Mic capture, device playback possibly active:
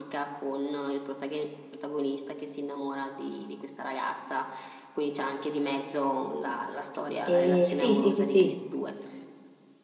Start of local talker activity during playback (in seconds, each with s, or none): 7.2 s